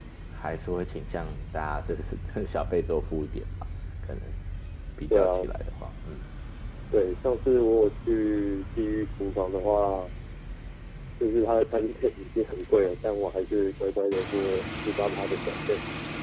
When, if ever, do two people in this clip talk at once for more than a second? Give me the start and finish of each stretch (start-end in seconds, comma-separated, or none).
none